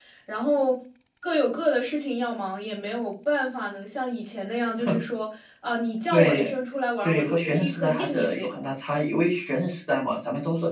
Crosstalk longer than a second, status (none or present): present